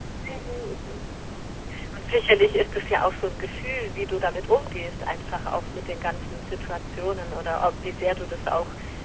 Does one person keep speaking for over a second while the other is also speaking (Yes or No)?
No